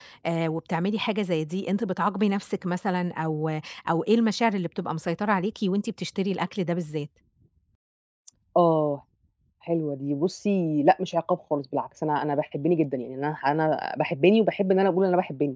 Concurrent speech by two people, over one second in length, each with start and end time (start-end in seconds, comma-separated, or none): none